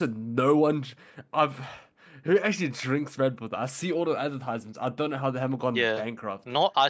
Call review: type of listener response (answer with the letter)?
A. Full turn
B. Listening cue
A